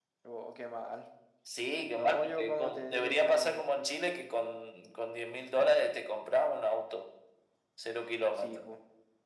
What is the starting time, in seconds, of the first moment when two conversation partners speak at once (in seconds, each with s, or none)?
1.9 s